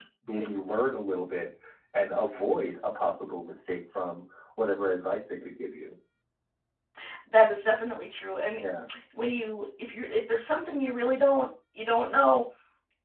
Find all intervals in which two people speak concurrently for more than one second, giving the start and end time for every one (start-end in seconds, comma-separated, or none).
none